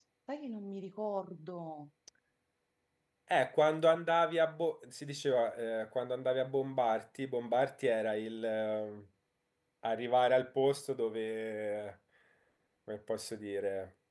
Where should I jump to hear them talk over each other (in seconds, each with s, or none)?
none